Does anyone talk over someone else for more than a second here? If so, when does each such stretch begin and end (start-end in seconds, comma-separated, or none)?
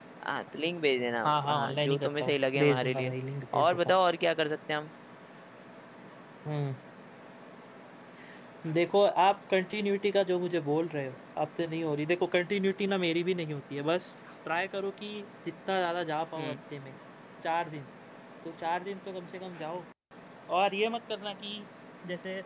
1.2-3.1